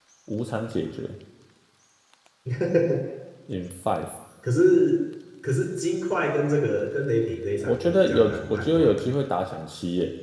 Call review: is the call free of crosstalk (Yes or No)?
No